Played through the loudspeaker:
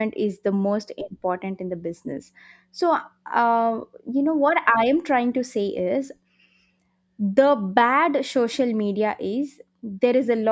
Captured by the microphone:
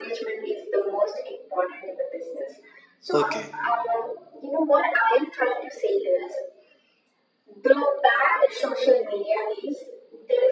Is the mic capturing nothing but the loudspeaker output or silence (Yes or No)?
No